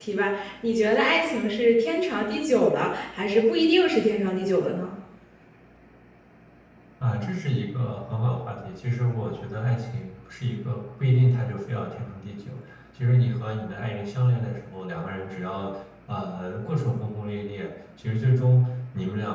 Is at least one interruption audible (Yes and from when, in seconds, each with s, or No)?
No